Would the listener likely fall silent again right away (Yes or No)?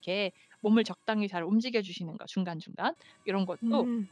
Yes